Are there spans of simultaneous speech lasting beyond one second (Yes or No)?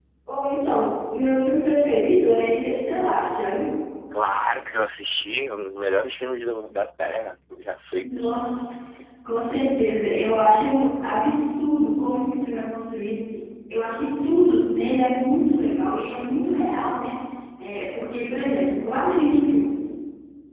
No